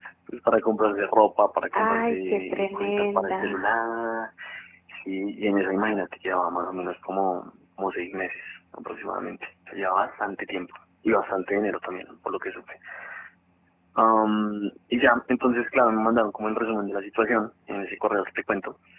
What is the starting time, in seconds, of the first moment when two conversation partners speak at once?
2 s

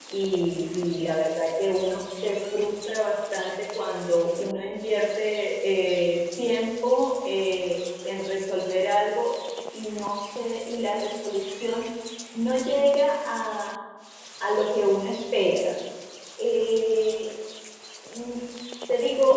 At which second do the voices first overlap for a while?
none

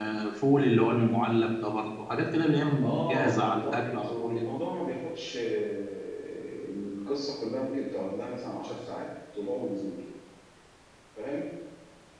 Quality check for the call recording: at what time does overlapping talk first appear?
3 s

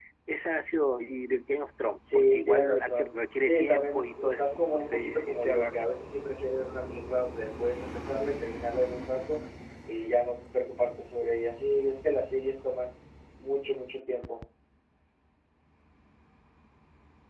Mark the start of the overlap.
2 s

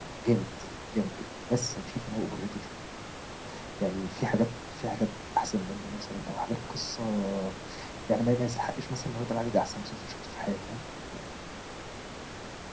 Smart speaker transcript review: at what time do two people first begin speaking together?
none

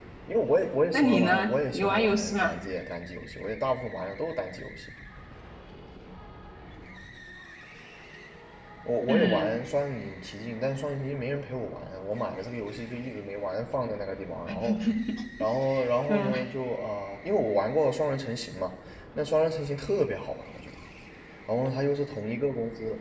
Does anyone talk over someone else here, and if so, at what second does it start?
1 s

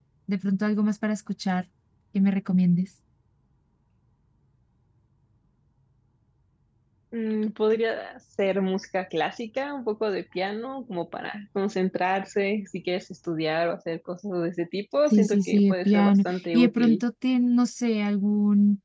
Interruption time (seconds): 15 s

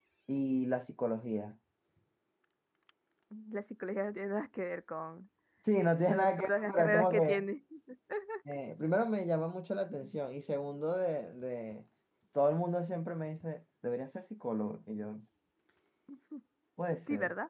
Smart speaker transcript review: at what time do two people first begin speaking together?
6 s

